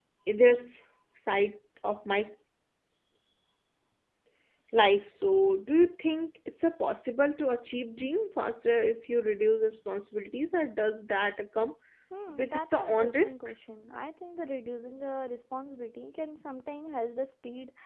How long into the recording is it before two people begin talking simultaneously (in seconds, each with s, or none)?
12.3 s